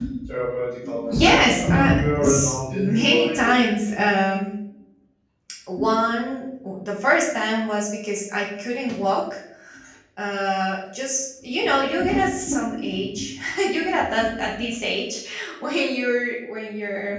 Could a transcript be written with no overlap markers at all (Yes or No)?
No